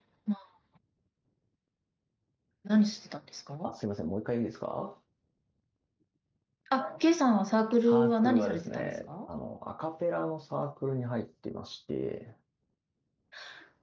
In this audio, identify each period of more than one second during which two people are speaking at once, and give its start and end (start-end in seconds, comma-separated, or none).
7.8-9.1